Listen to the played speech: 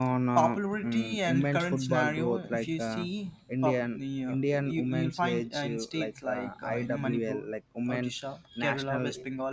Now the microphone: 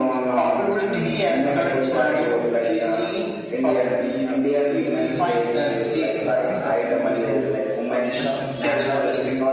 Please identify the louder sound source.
echo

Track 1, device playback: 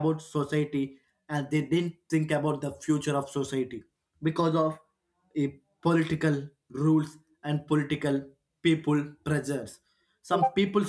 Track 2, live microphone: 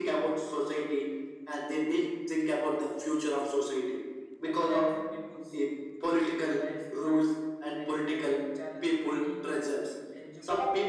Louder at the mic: echo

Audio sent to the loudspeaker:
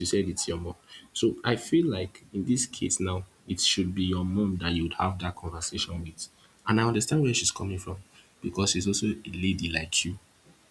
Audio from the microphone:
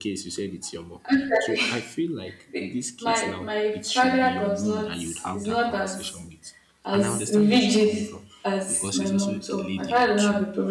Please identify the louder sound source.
user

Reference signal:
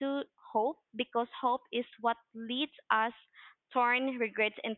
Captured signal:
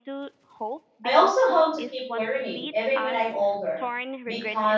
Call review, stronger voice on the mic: user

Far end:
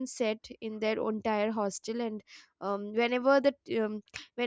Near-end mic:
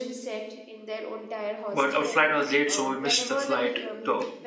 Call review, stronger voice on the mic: user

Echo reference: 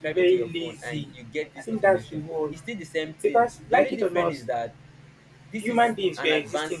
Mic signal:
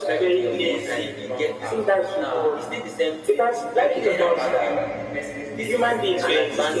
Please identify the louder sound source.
echo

